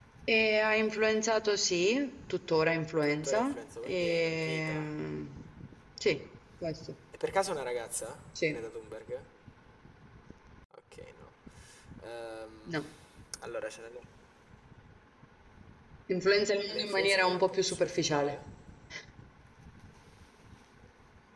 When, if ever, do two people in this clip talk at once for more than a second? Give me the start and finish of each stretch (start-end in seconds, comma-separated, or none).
3.0-4.9, 16.7-18.4